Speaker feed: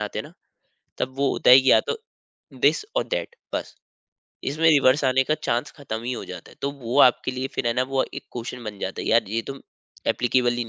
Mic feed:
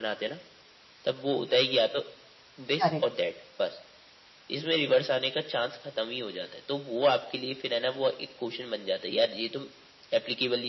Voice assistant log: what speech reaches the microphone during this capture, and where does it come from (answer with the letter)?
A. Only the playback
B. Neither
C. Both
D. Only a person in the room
C